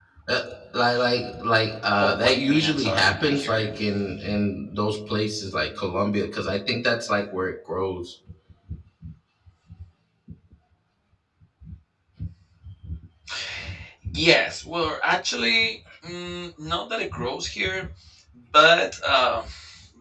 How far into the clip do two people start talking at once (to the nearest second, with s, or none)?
2 s